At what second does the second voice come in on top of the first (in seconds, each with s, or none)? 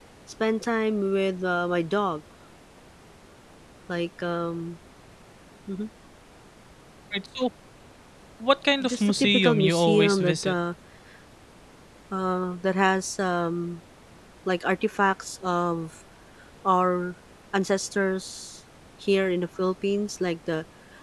8.8 s